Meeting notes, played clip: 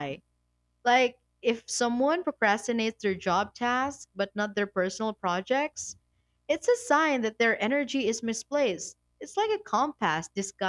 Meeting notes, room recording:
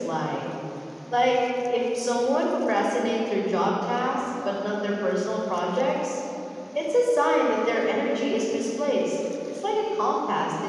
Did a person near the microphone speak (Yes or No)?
No